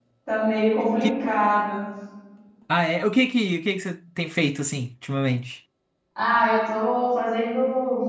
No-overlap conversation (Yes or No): Yes